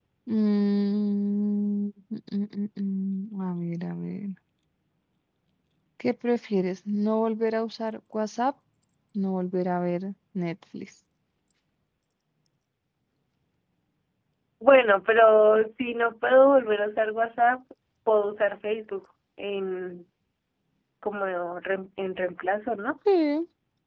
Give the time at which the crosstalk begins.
none

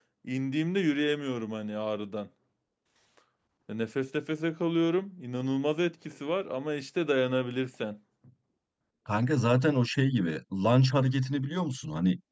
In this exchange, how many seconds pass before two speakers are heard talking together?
none

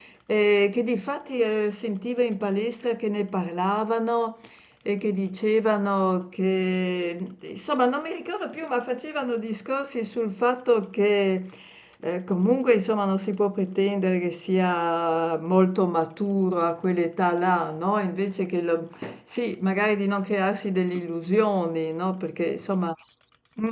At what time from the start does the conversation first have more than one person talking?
none

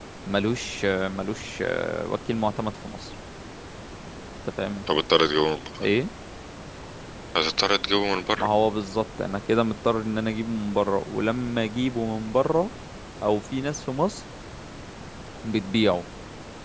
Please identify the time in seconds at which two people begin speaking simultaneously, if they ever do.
none

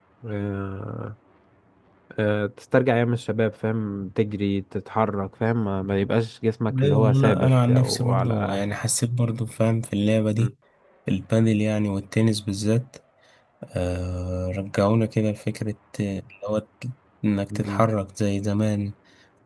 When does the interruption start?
6.8 s

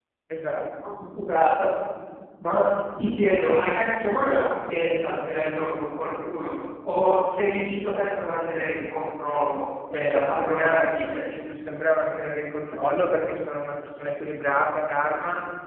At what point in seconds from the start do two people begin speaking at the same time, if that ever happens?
9.9 s

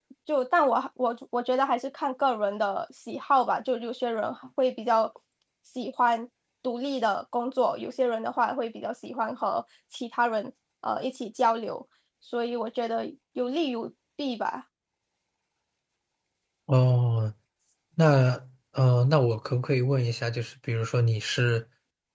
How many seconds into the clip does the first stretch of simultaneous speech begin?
none

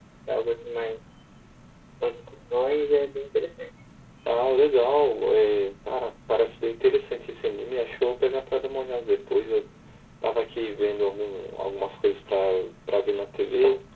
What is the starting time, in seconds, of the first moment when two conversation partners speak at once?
none

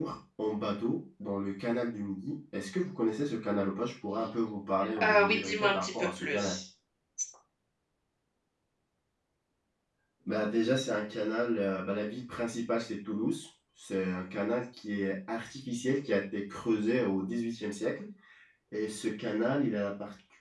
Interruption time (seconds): 5.0 s

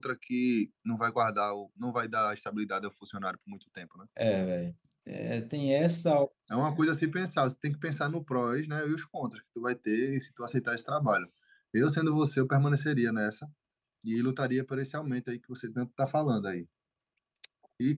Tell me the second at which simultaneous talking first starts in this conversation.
none

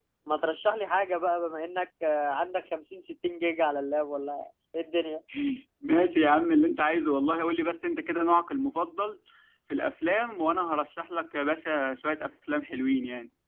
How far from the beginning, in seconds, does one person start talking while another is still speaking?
none

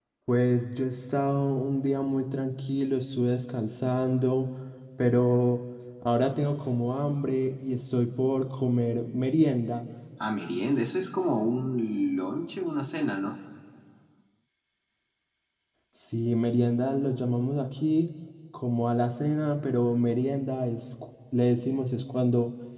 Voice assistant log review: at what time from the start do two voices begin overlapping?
none

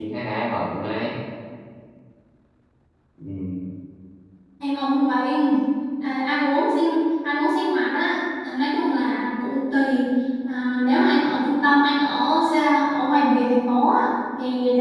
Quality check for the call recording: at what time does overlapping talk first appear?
none

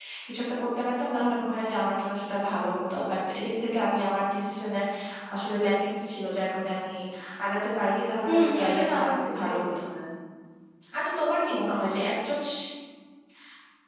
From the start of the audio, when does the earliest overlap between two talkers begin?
8.3 s

